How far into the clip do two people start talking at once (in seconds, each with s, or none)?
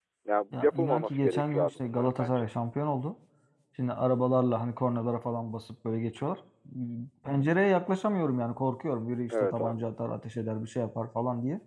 0.5 s